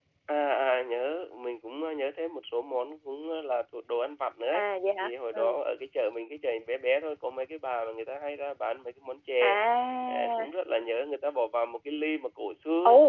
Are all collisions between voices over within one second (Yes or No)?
Yes